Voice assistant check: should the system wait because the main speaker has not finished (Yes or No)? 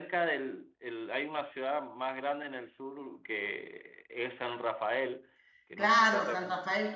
No